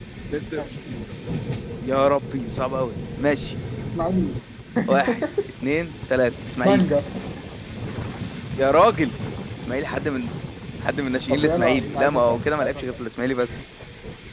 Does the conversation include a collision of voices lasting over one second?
Yes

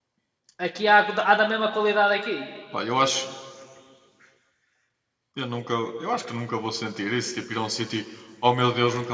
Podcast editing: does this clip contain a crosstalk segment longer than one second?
No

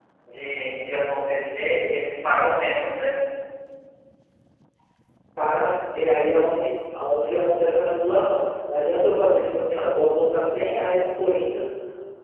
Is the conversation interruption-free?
Yes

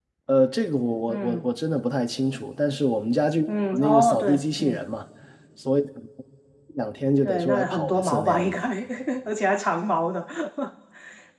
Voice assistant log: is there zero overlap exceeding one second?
No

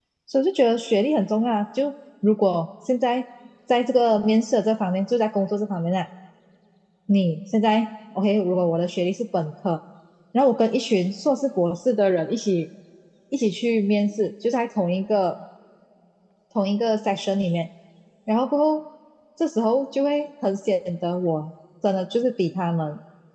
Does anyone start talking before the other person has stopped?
No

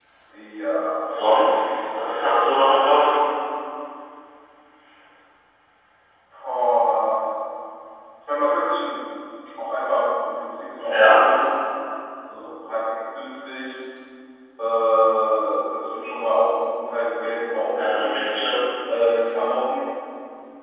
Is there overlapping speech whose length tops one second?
No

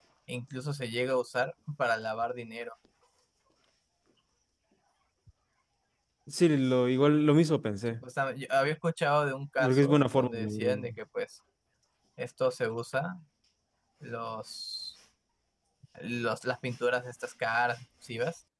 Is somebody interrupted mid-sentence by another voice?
Yes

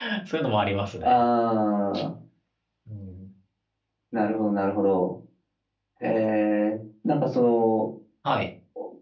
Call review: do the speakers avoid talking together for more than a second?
Yes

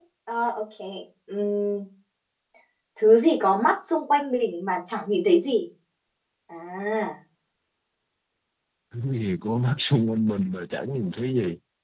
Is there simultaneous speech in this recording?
No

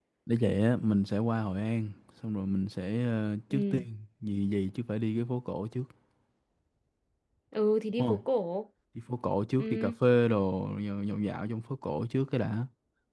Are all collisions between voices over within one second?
Yes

